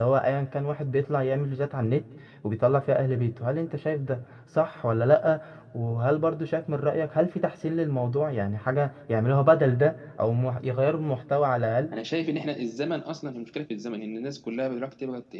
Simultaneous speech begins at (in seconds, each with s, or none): none